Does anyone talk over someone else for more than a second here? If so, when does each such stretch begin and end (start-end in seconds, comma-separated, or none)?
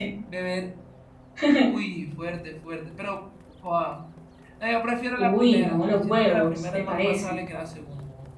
5.2-7.4